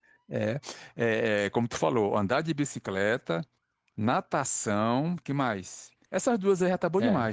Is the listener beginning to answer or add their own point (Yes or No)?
Yes